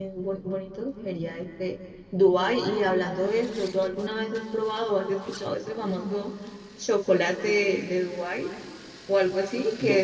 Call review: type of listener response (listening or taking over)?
listening